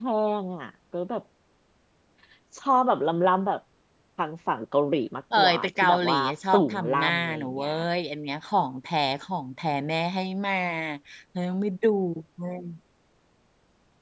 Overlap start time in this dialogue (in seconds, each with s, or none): 5.3 s